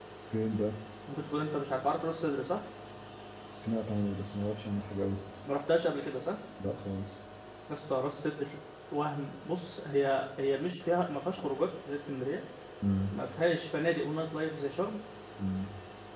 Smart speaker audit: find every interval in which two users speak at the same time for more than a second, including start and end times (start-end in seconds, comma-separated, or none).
none